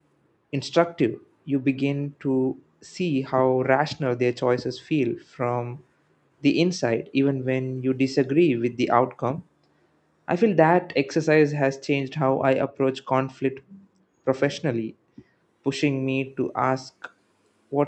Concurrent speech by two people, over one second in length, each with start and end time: none

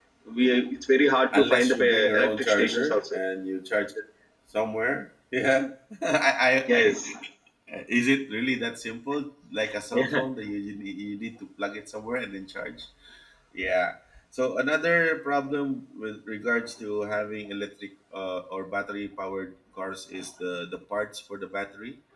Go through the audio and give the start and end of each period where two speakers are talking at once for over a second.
1.4-3.2

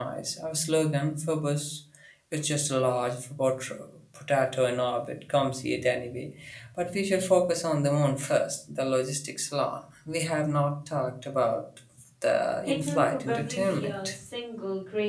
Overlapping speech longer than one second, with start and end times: 12.6-14.2

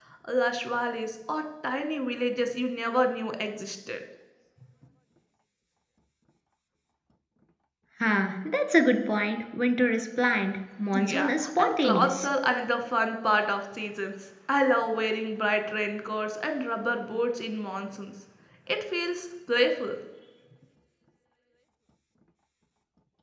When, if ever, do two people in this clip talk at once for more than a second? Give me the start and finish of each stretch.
10.9-12.3

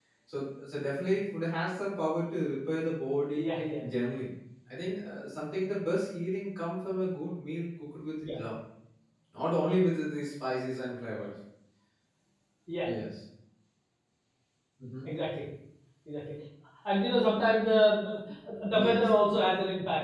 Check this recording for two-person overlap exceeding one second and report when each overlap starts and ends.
none

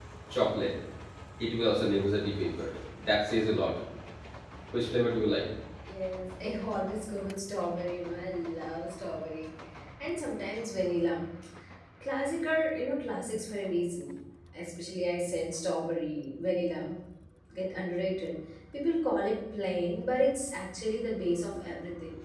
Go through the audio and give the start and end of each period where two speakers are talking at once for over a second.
none

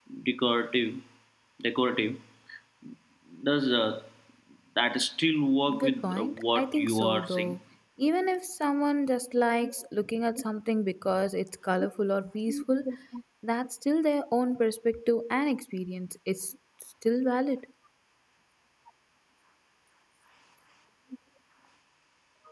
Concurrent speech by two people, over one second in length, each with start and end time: 5.8-7.6

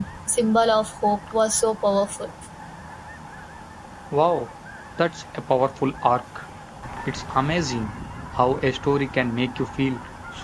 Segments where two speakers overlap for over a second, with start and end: none

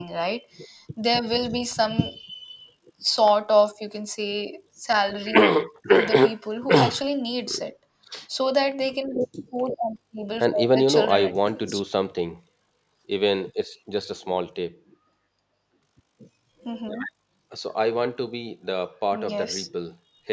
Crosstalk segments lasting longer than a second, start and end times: 10.4-11.8

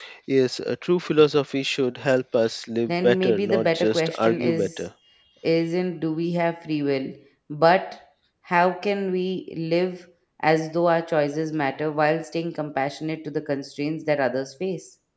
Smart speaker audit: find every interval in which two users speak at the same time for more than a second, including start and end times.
2.9-4.8

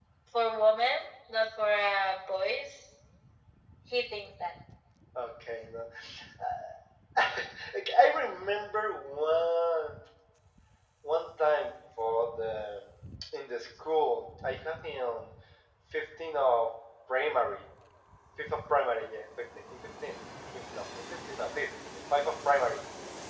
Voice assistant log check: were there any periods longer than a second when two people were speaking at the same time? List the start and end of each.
none

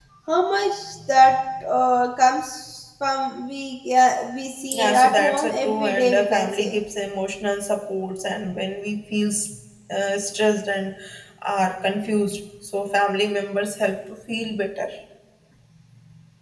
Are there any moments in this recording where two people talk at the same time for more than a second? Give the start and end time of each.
4.7-6.8

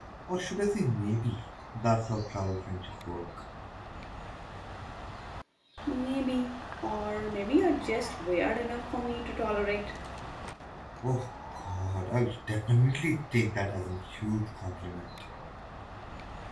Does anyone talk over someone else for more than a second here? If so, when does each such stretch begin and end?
none

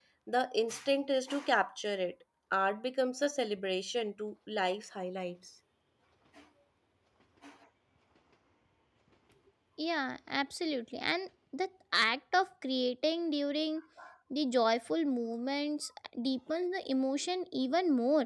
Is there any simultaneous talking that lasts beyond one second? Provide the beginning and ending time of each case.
none

